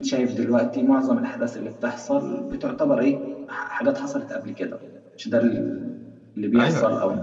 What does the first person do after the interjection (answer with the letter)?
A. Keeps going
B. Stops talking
B